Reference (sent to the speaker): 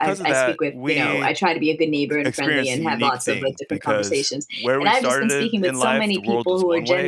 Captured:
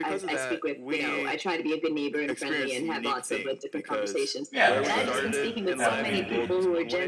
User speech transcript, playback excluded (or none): Yeah, absolutely. I have community.